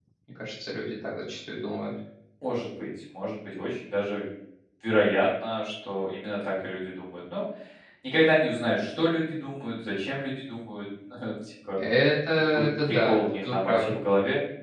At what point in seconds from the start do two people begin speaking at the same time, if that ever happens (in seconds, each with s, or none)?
12.7 s